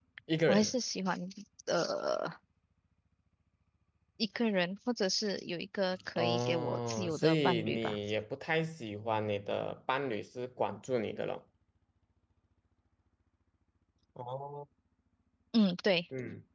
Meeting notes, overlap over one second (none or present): present